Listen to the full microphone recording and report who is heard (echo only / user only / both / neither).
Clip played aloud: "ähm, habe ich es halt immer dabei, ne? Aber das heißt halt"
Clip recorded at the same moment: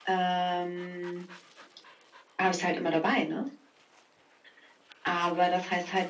echo only